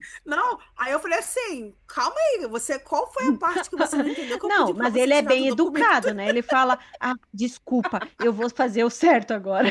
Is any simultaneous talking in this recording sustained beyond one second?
Yes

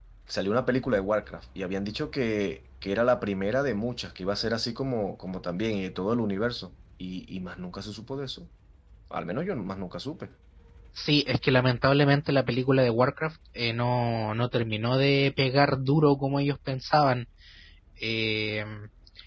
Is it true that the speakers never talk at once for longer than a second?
Yes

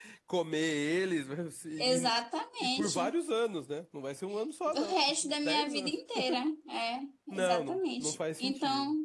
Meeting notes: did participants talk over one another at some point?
Yes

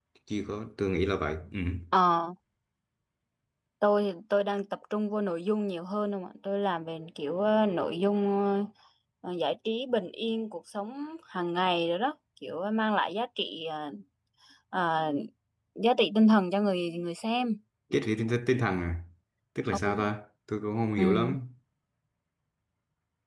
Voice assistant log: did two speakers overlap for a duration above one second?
No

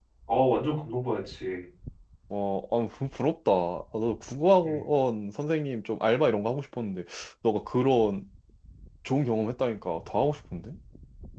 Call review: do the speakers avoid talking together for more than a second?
Yes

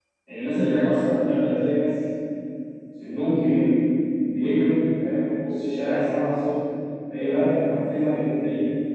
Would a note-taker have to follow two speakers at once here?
No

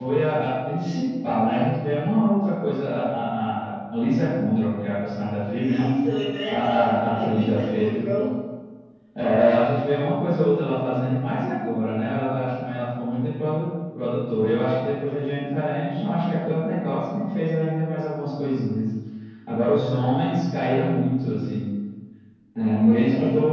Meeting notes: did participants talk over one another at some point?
Yes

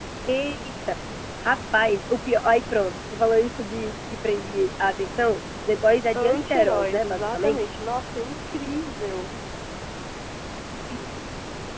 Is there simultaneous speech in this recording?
Yes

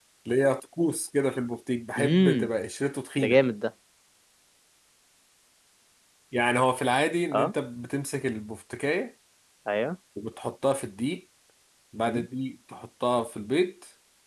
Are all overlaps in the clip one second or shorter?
Yes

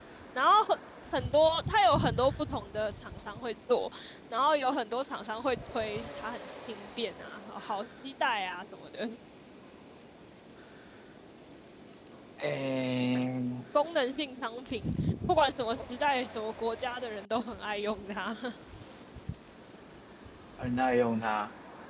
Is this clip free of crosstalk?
Yes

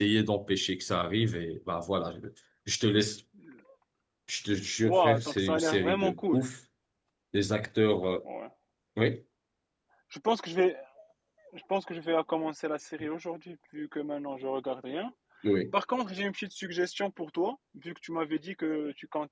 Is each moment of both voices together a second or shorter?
No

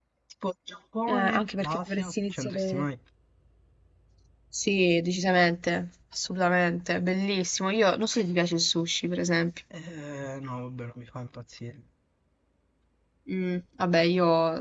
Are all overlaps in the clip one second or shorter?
No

